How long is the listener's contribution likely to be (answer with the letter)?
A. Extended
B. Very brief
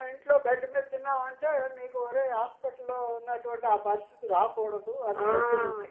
A